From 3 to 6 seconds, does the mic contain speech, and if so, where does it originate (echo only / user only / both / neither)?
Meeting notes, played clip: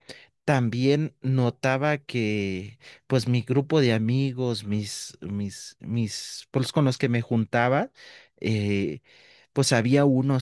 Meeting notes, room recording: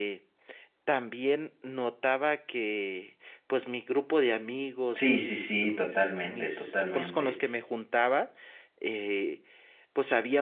both